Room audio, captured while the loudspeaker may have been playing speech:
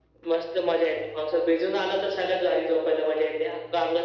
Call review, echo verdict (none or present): present